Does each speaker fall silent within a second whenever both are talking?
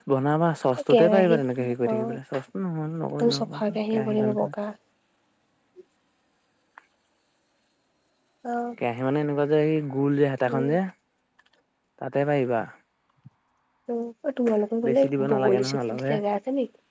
No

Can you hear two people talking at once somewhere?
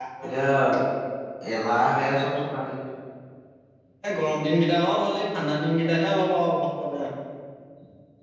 No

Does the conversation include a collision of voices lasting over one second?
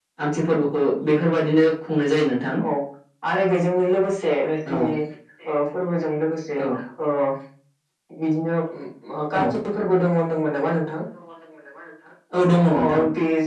No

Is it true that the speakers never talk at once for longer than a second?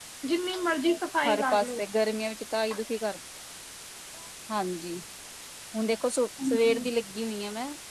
Yes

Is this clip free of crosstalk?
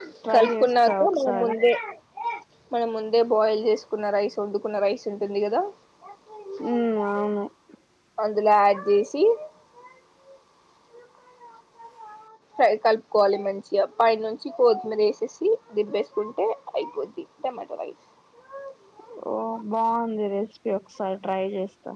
No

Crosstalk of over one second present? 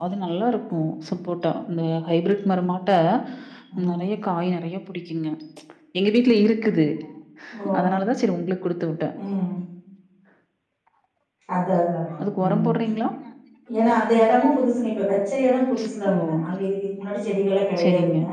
No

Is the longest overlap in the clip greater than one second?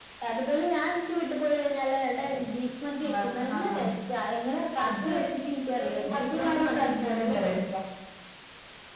Yes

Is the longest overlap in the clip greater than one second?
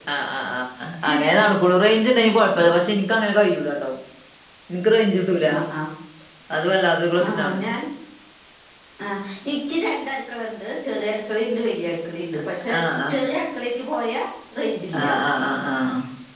No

